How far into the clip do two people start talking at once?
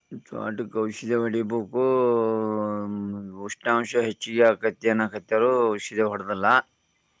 none

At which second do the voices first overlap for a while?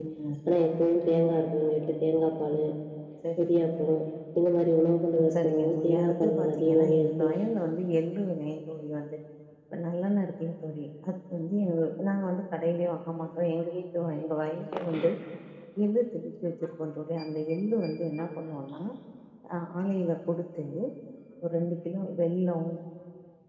5.4 s

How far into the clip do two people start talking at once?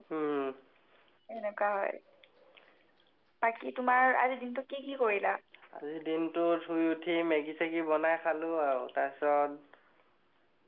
none

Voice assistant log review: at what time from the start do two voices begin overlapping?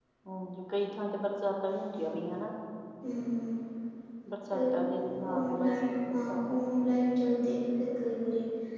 4.5 s

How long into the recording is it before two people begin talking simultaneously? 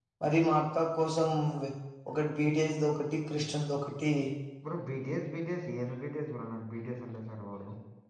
none

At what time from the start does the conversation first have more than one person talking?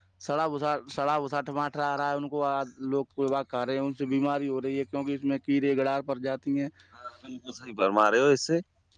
none

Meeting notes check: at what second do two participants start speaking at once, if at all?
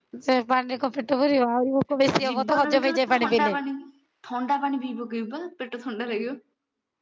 2.1 s

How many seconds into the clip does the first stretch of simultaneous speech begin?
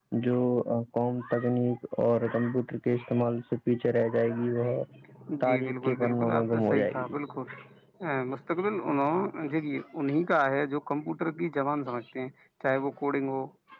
5.4 s

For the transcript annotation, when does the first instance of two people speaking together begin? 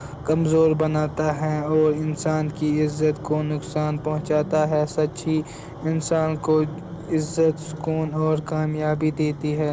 none

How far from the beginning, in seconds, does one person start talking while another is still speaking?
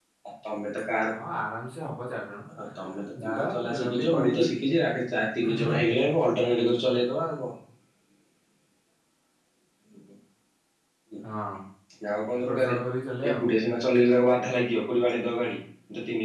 3.2 s

